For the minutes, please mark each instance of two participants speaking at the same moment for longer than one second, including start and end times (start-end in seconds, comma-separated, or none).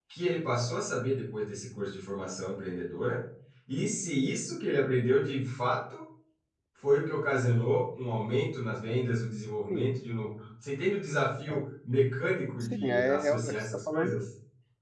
12.6-14.2